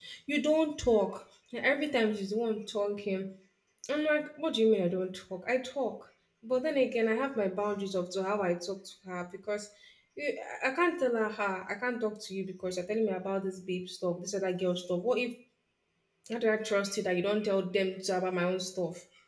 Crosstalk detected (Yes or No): No